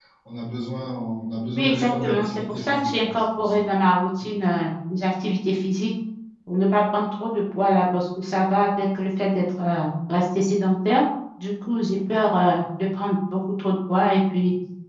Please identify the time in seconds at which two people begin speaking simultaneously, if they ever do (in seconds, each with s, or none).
1.5 s